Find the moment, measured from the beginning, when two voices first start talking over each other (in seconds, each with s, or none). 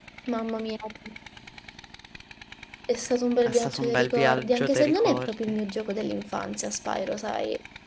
3.5 s